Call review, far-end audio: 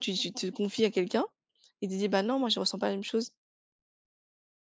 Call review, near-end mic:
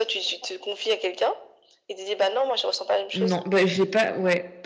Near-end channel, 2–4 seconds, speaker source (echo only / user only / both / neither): both